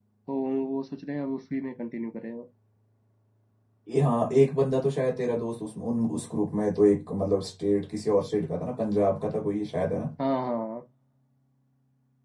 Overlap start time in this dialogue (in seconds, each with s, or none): none